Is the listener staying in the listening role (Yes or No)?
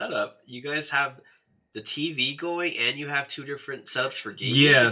No